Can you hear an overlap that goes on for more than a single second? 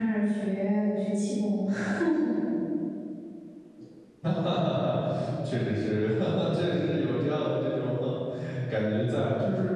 No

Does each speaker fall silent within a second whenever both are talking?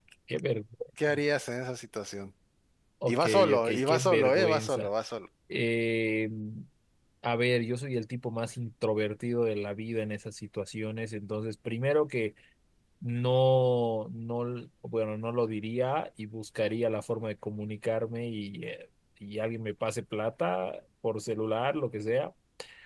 No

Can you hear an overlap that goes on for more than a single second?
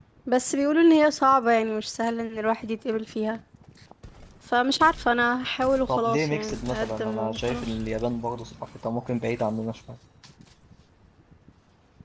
Yes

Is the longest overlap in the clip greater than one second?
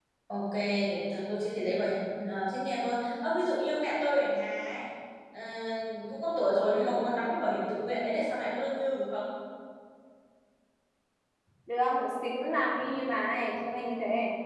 No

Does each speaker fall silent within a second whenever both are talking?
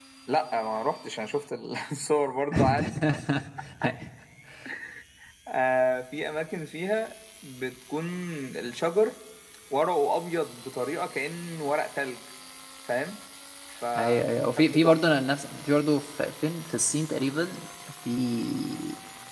Yes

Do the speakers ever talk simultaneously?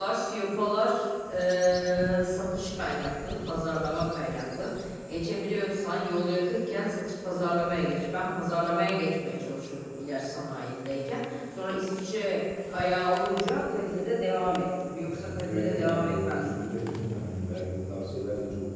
Yes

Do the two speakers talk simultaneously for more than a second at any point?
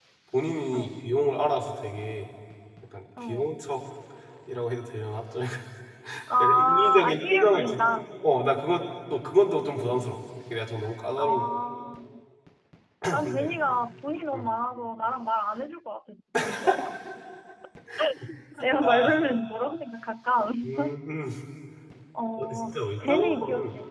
Yes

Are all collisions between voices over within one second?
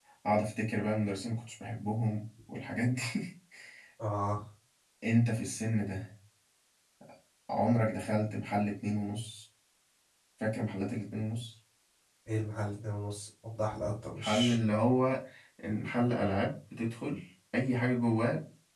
Yes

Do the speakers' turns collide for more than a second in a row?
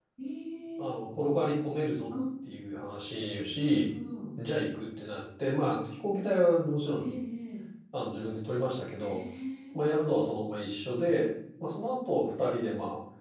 No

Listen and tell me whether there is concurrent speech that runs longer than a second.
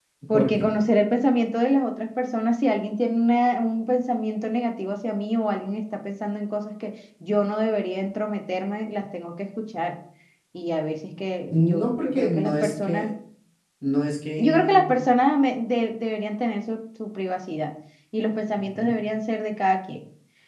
Yes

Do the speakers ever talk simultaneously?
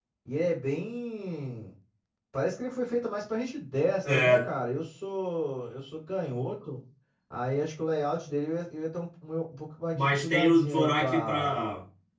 Yes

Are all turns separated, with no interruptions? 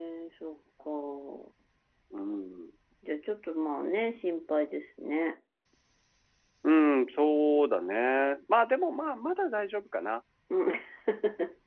Yes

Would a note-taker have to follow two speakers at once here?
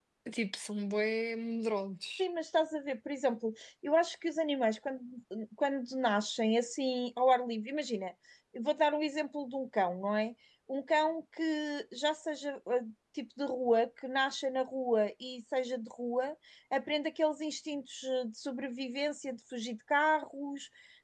No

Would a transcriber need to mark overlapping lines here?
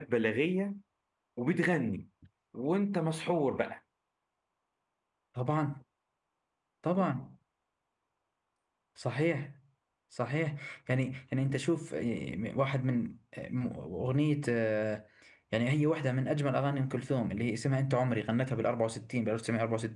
No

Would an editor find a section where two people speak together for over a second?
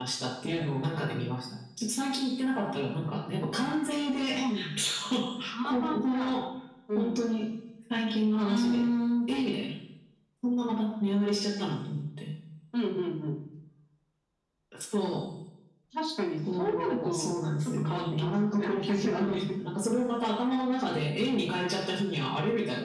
Yes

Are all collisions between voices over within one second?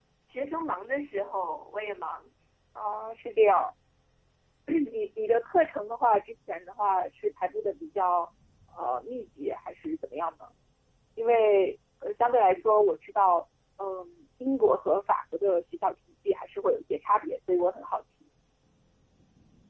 Yes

